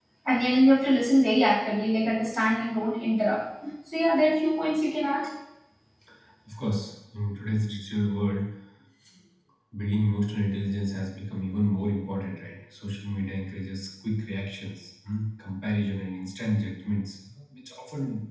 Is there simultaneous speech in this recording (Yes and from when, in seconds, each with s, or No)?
No